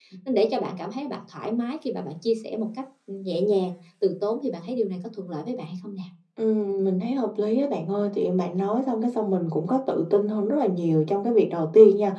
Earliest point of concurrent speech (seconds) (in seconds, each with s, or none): none